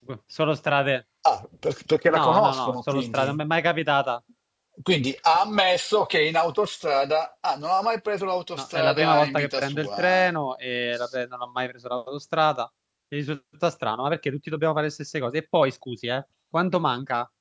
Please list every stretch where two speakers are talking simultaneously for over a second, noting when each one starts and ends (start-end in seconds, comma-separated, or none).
2.1-3.4, 8.6-10.3